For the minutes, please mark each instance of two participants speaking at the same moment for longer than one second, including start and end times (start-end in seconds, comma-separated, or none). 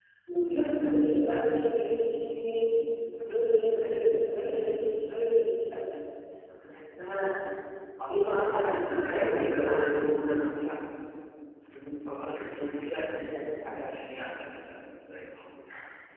8.1-9.6